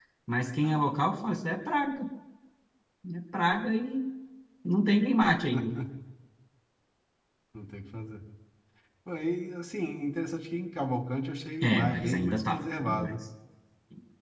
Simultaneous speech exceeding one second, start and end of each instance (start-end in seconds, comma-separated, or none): 11.6-13.1